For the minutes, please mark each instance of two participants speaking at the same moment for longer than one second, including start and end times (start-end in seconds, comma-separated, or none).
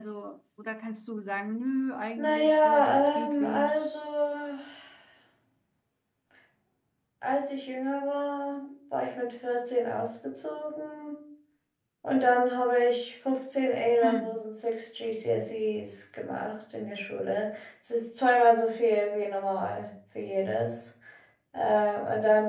2.2-4.0